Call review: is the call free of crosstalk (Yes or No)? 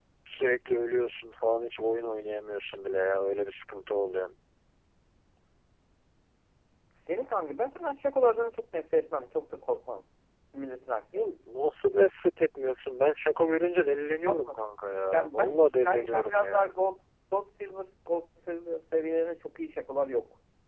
No